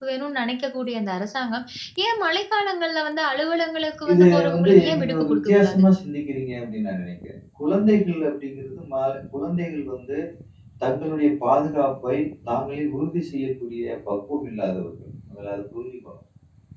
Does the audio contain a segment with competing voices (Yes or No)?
Yes